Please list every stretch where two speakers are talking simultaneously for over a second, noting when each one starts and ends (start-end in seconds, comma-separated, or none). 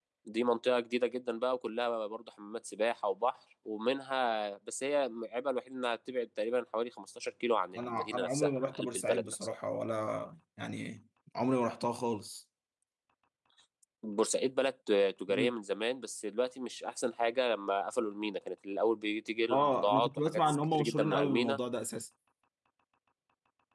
7.8-9.5, 19.5-21.6